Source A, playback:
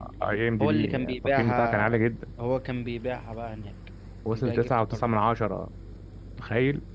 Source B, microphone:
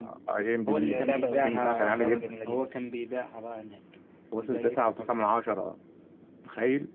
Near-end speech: present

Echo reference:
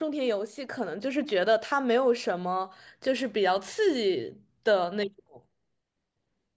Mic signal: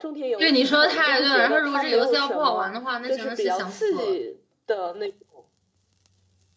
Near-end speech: present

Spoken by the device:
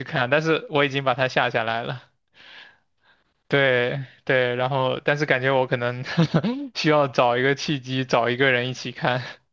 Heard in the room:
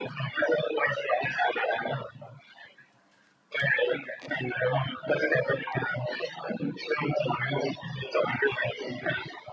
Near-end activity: none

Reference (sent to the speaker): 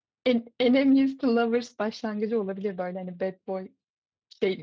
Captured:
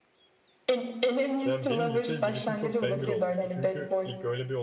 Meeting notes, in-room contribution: present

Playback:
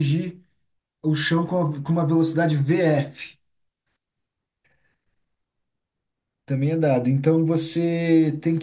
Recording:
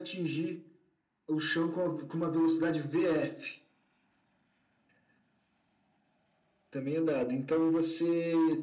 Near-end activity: none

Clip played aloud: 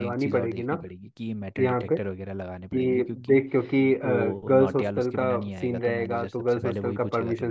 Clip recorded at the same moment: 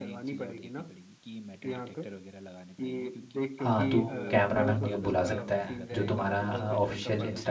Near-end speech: present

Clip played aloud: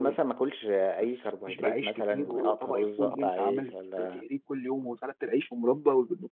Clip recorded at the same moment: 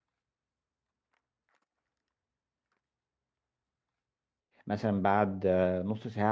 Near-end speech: present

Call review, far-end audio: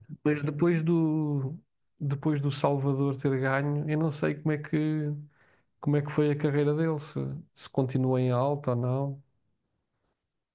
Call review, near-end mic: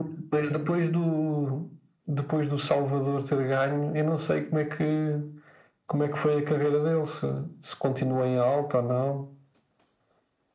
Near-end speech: none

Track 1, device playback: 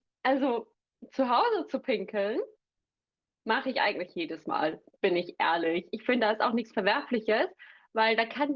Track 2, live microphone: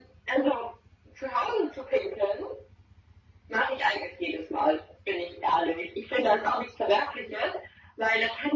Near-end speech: none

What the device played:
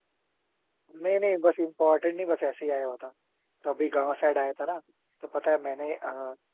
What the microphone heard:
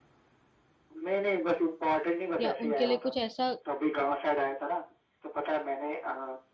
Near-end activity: present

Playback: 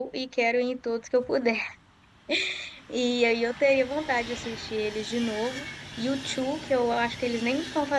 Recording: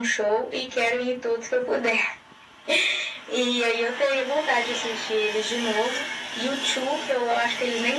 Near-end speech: none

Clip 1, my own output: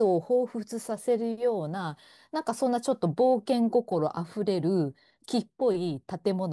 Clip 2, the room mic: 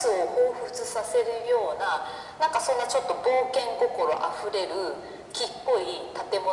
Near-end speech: none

